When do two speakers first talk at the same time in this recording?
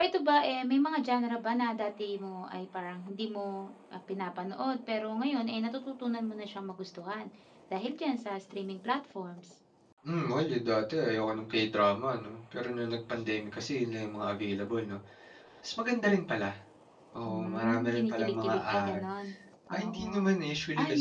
17.2 s

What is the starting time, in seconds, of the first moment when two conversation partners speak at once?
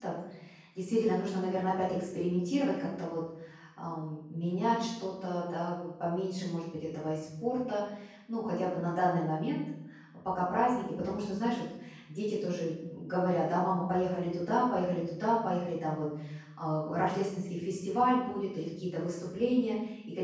none

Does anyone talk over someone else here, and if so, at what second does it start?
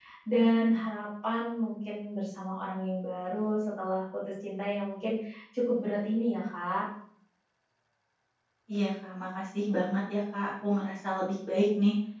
none

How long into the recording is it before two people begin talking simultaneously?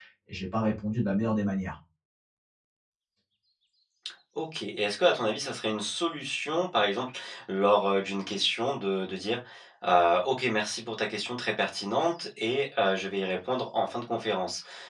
none

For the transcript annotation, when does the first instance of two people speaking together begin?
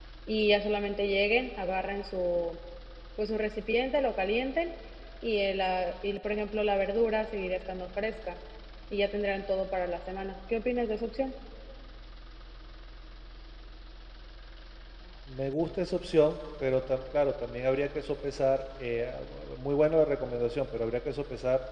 none

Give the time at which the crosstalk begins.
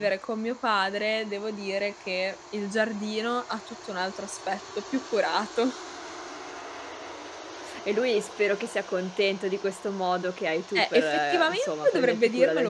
10.8 s

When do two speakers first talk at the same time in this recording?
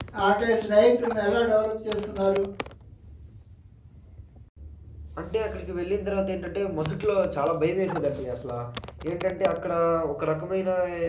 none

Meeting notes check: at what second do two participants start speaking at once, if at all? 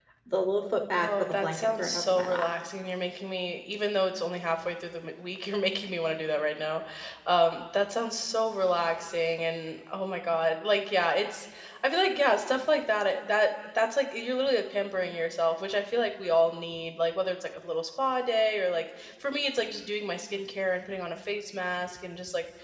1.0 s

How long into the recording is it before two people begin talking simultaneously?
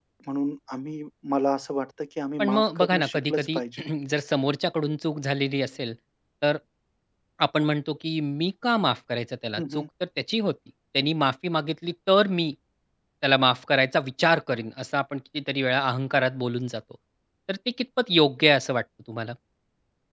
2.4 s

